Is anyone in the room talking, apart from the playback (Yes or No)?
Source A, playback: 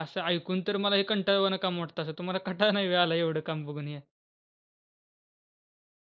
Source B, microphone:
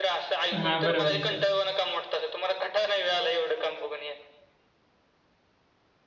Yes